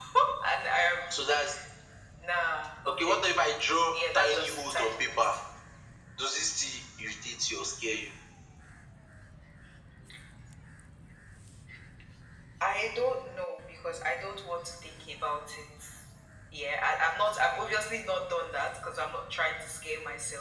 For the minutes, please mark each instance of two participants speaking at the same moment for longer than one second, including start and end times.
3.9-5.3

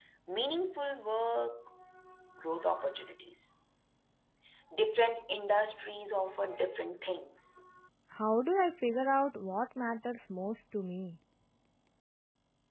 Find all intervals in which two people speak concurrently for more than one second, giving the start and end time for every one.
none

